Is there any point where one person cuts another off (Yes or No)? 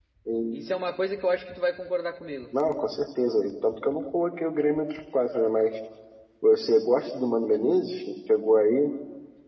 No